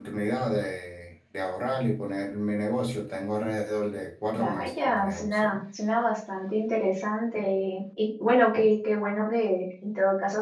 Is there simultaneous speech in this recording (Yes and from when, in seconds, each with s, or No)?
Yes, from 4.3 s